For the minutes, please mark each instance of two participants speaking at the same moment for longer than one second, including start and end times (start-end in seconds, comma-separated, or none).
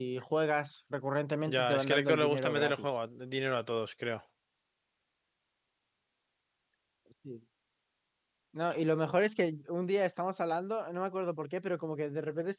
1.5-2.9